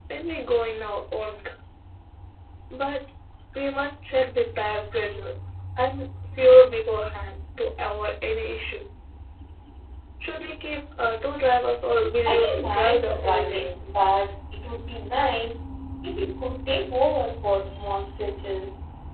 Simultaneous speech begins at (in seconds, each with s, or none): 12.2 s